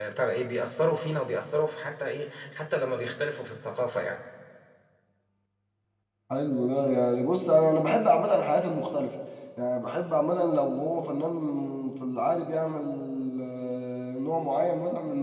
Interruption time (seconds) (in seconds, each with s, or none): none